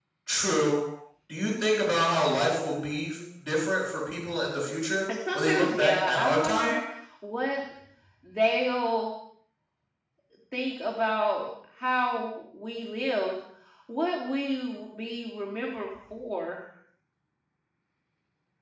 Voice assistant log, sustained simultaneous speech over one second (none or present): present